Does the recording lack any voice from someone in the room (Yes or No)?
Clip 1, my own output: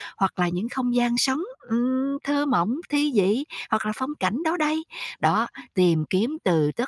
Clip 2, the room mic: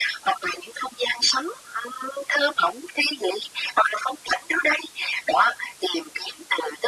Yes